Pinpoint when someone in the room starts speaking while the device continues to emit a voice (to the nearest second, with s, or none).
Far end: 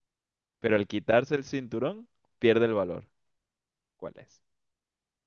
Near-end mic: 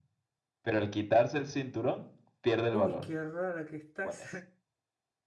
3 s